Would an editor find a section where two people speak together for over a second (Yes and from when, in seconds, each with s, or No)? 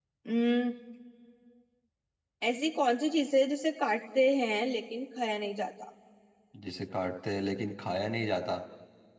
No